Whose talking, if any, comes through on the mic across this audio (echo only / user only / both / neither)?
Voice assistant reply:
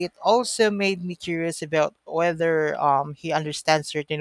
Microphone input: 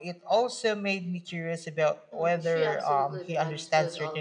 both